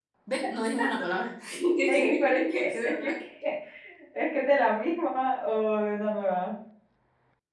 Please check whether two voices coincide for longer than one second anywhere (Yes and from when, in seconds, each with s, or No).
Yes, from 1.9 s